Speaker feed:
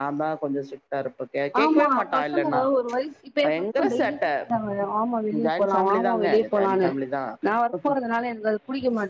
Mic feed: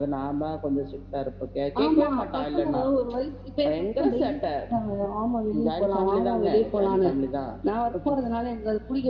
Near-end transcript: none

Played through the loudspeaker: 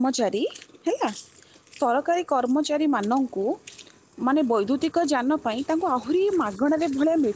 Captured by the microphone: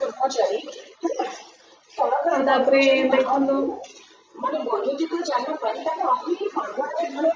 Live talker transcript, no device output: ଆଉ ତାପରେ ଦେଖନ୍ତୁ

